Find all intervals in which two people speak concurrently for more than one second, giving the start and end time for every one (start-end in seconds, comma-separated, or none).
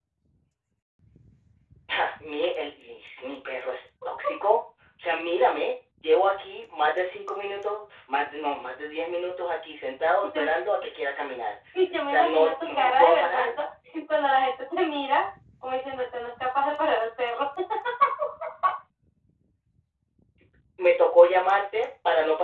12.1-13.6